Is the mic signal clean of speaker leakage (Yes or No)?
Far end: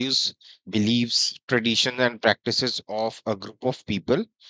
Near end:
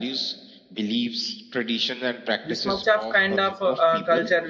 No